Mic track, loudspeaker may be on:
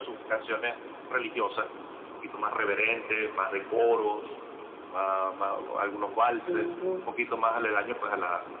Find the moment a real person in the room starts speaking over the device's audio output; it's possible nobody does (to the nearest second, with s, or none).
6 s